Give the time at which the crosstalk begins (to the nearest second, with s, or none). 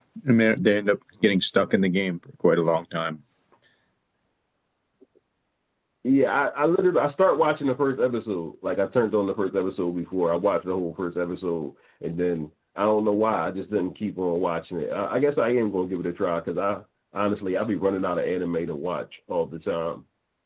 none